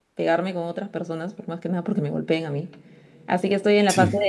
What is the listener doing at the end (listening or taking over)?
listening